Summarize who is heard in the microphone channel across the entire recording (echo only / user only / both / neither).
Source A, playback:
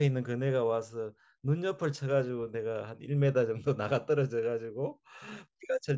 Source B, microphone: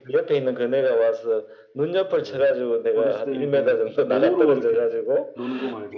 both